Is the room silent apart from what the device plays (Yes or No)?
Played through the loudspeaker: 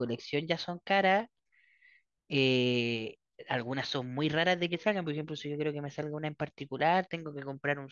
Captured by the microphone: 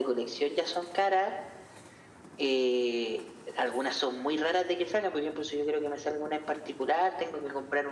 Yes